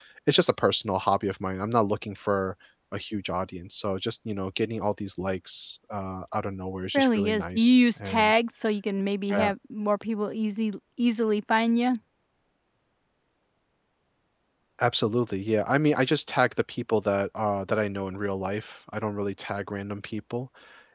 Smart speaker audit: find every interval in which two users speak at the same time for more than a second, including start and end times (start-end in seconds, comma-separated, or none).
6.9-8.4